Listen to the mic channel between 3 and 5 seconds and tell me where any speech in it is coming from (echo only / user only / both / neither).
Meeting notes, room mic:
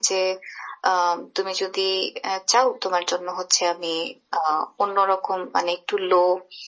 echo only